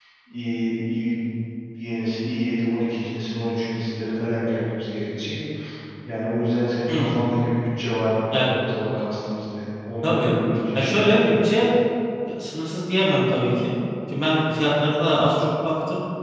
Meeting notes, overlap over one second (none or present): none